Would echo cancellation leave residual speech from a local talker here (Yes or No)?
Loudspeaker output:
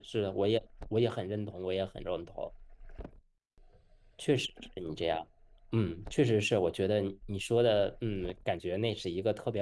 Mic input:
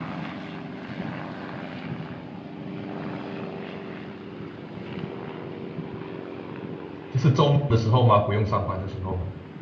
Yes